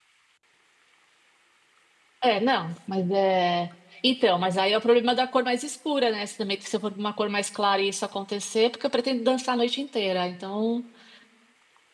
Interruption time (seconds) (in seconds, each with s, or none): none